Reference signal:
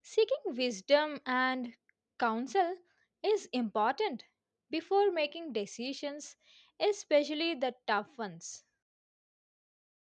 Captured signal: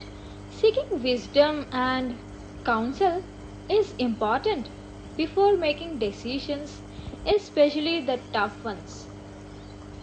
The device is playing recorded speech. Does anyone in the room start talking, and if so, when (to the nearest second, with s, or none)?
none